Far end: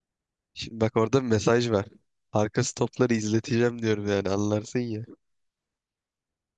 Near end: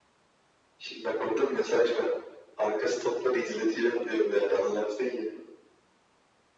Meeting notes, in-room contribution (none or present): none